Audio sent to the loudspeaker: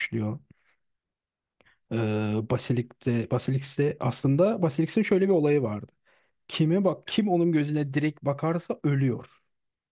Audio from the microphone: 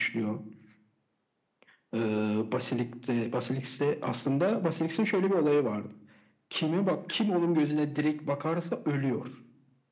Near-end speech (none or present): none